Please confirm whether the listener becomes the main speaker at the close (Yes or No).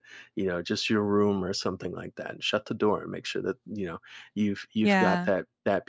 No